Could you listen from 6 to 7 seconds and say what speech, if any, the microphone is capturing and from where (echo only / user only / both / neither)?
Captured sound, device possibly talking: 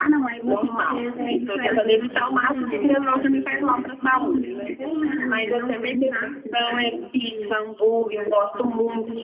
both